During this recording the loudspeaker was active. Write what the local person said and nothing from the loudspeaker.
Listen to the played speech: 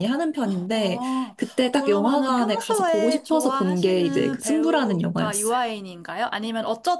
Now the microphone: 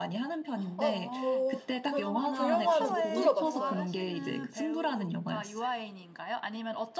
어, 저는 그 영화는 못 들어봤어요.

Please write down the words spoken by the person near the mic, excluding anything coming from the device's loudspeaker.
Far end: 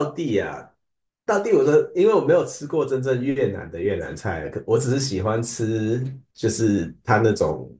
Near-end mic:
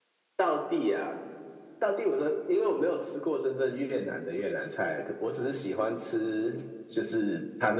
none

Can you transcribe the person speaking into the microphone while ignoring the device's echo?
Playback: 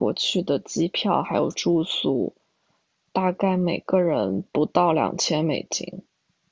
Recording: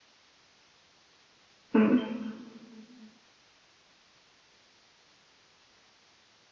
嗯。啊

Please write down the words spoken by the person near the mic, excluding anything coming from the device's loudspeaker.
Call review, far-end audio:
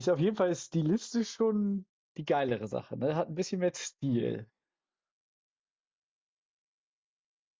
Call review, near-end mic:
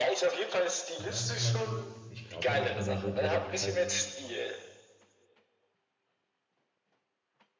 Oder kann man den, ich glaube nicht, dass man den so direkt kalt

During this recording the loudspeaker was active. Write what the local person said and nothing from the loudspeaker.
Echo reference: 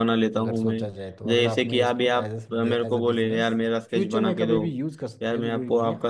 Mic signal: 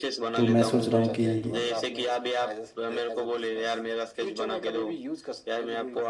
तो मैं सोच रहा हूँ कि

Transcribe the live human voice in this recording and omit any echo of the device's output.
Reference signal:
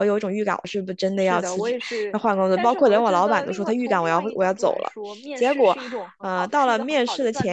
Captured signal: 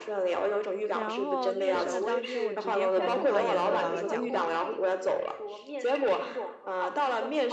然后面试的当天我直接喉咙发炎，没有办法讲话，

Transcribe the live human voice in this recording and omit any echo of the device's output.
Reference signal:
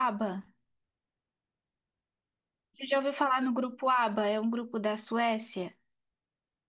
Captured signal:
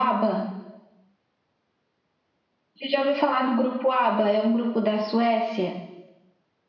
none

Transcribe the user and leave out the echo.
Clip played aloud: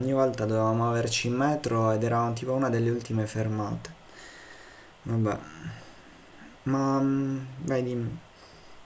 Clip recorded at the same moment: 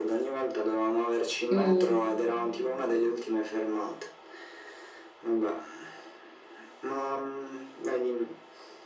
mm,

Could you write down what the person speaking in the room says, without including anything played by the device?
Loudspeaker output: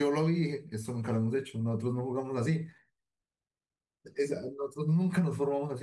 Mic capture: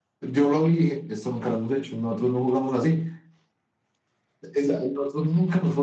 none

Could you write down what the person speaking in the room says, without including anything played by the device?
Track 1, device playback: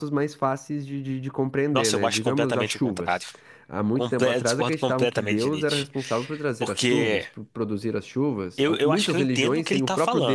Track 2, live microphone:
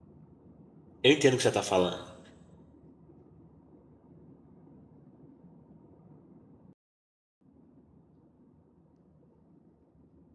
eu entendo o que você está falando.

